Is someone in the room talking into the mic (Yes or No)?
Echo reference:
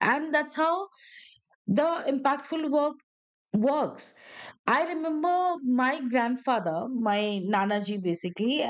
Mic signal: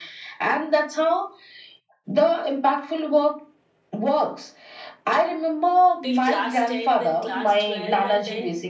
Yes